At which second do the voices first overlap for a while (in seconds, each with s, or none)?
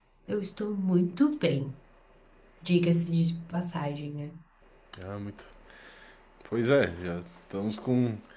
none